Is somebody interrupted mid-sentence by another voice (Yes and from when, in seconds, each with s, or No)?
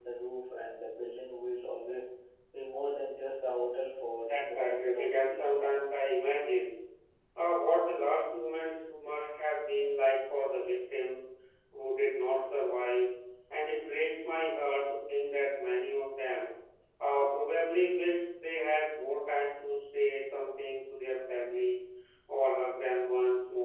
Yes, from 4.2 s